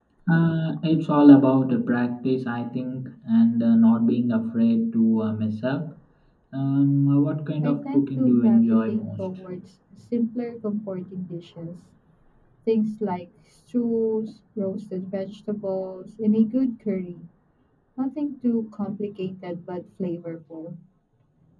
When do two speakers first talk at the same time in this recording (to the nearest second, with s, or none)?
8 s